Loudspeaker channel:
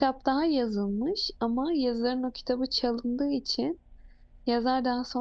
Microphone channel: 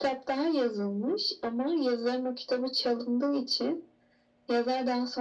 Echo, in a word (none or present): present